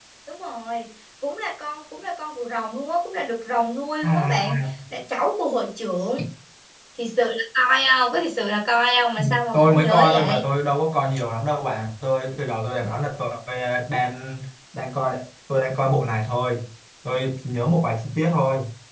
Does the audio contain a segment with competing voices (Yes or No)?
Yes